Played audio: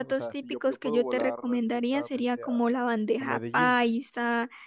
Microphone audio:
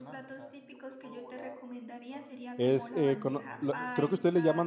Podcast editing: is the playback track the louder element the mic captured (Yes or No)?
No